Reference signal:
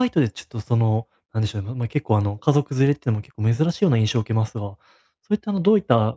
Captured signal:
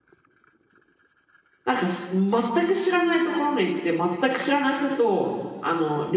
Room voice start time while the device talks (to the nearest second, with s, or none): 2 s